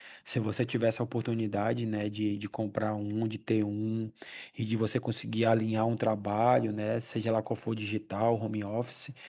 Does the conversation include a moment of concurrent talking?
No

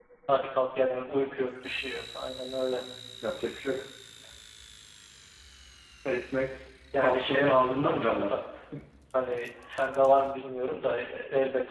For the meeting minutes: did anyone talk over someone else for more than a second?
Yes, from 6.9 s

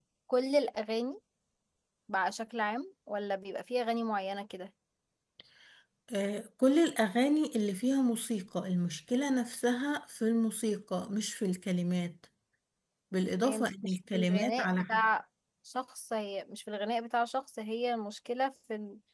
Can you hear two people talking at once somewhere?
Yes, from 13.4 s

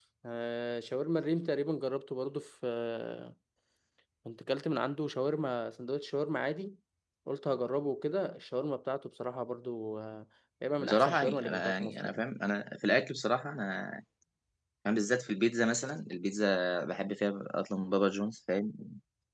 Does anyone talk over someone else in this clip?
Yes, from 10.8 s

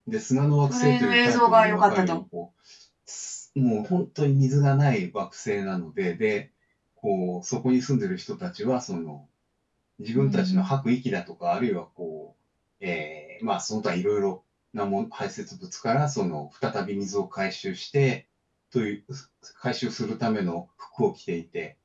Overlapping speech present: Yes, from 0.7 s

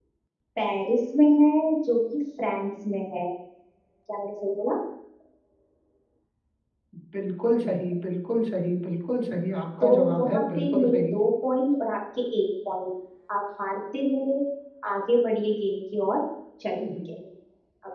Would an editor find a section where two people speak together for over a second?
Yes, from 9.8 s

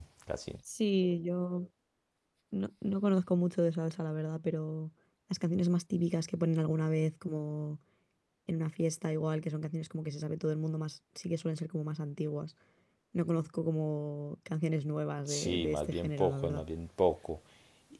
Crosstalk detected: Yes, from 15.3 s

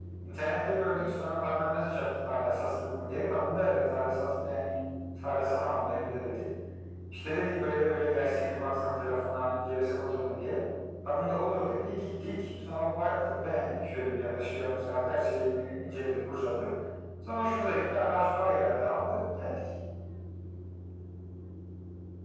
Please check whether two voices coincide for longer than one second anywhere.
No

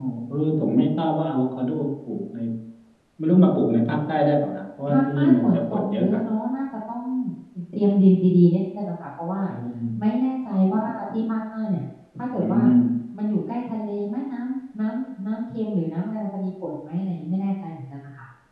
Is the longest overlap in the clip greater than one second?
Yes, from 4.9 s

